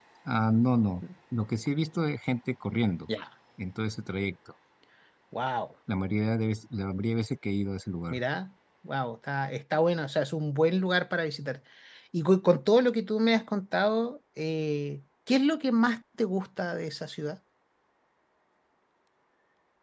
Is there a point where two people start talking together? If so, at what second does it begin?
none

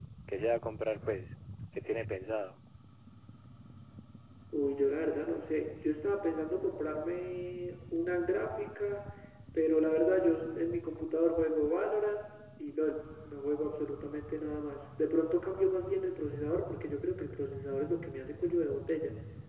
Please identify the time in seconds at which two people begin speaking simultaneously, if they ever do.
none

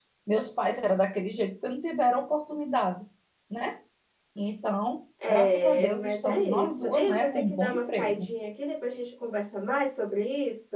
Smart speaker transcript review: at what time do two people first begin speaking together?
5.2 s

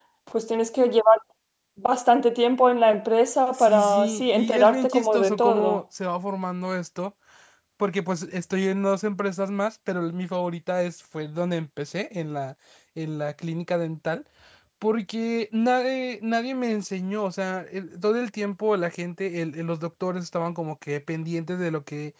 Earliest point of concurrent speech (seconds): 3.5 s

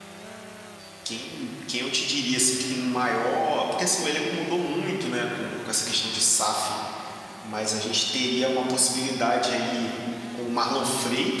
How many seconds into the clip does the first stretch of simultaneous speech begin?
none

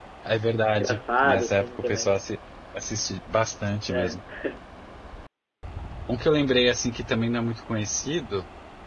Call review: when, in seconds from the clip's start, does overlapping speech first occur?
0.7 s

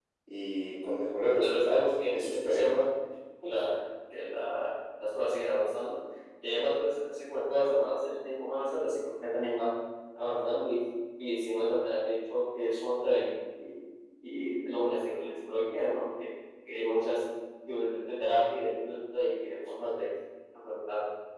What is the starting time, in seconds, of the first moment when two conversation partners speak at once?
1.2 s

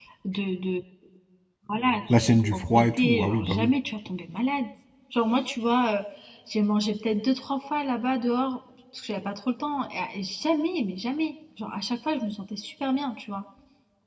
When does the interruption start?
2.1 s

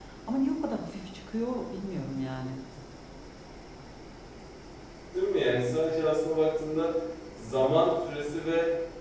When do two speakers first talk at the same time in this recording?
none

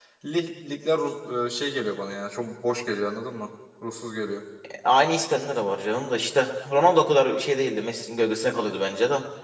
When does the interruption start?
none

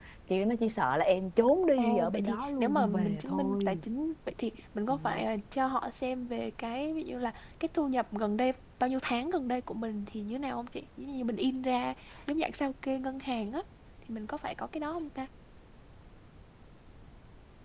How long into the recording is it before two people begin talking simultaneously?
1.8 s

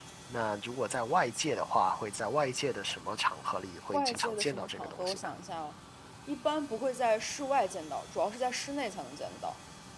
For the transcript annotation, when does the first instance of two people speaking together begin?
3.9 s

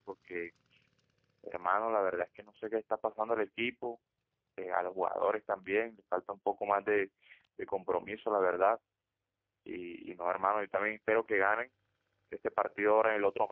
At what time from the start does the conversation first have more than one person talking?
none

